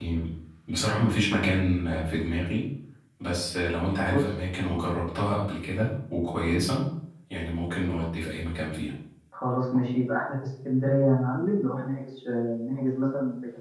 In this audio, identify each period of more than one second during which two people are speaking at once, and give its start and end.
none

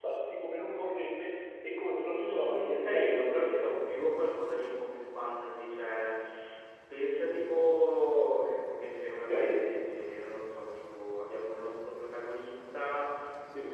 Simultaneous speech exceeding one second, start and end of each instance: 2.1-3.6

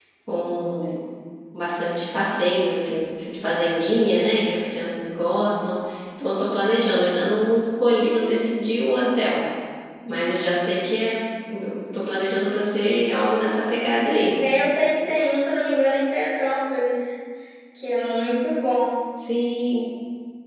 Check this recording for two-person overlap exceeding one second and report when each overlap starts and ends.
none

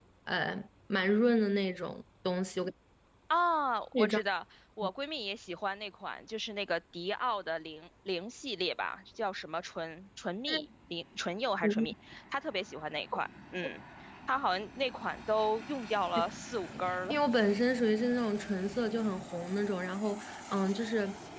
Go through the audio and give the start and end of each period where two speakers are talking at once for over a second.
none

